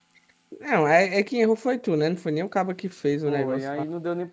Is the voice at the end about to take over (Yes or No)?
Yes